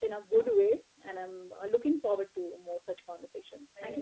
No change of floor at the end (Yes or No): No